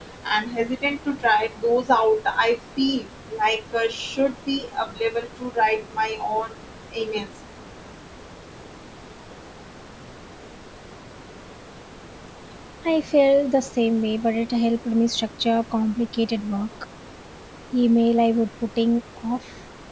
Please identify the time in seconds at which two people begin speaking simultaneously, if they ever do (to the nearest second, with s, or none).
none